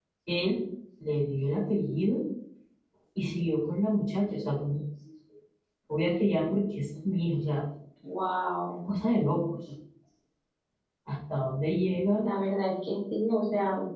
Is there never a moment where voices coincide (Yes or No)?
Yes